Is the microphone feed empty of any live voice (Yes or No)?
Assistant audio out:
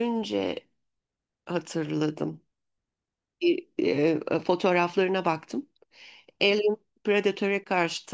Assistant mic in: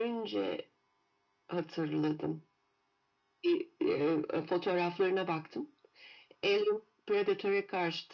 Yes